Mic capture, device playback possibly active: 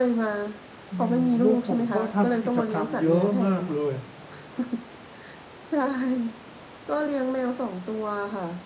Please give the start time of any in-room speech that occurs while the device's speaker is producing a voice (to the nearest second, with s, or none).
1 s